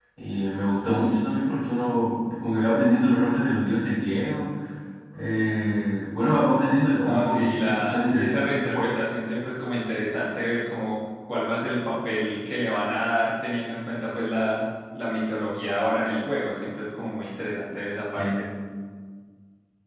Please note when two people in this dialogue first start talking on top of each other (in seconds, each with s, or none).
7.0 s